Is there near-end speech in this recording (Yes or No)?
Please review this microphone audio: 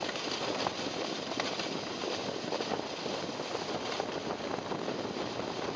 No